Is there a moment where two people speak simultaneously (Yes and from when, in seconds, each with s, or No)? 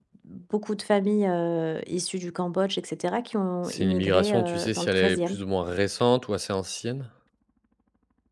Yes, from 3.7 s